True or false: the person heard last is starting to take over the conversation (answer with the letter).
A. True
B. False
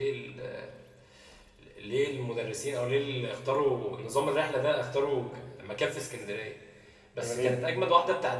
B